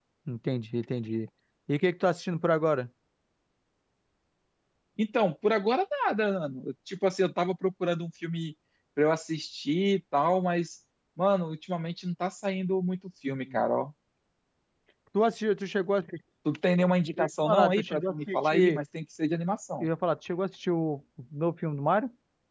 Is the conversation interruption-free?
No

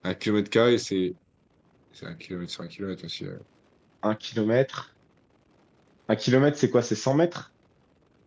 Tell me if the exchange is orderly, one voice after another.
Yes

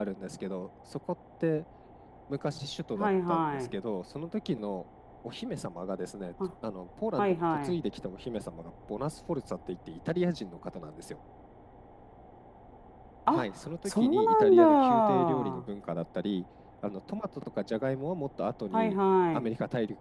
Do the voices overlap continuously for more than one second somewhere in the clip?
Yes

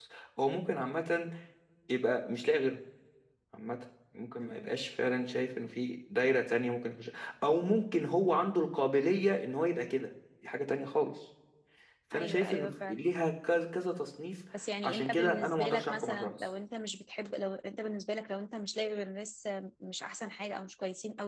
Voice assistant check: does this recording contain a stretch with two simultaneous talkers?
Yes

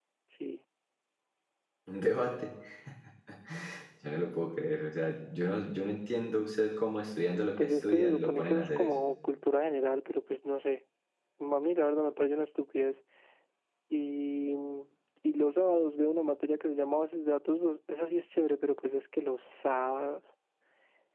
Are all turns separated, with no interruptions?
No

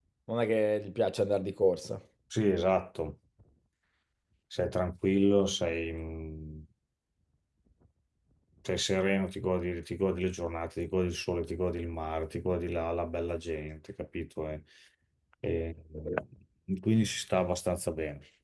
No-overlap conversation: Yes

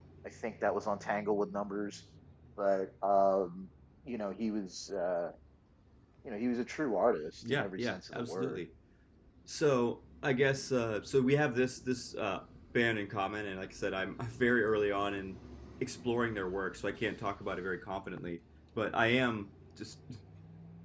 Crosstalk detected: Yes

